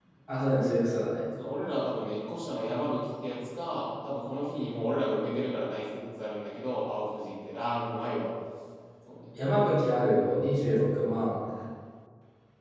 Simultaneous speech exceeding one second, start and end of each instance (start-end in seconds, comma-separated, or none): none